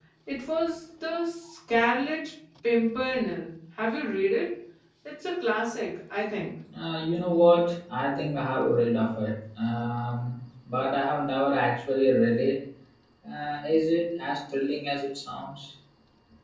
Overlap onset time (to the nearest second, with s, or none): none